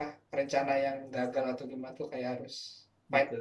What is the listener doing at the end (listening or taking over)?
taking over